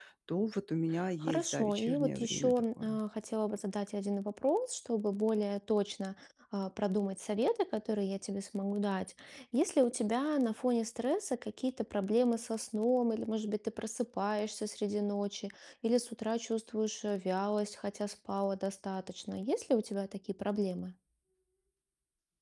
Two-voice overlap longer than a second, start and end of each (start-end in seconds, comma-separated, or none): 1.2-3.0